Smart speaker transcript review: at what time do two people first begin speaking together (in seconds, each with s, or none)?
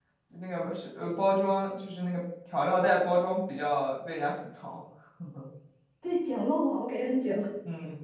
none